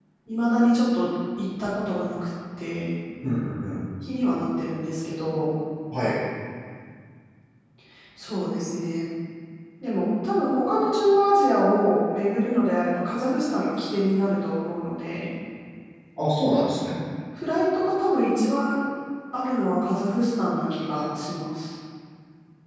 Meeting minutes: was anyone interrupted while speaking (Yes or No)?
No